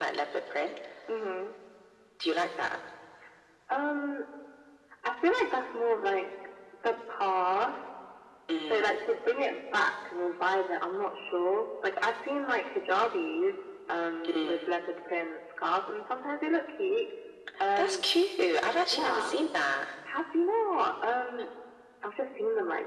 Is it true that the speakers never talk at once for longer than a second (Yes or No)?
Yes